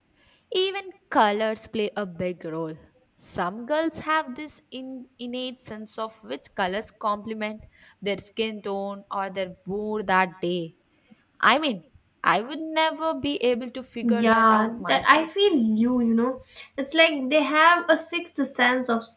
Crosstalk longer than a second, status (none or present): present